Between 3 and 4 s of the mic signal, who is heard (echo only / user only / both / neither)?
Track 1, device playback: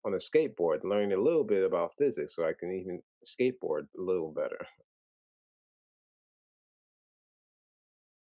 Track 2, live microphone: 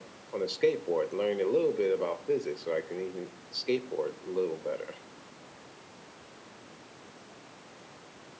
echo only